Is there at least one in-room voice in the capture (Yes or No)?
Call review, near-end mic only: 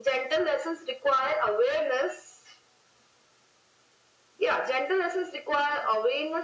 No